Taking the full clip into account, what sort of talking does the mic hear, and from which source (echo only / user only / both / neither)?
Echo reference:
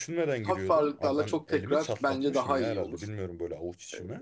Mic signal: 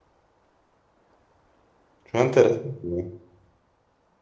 user only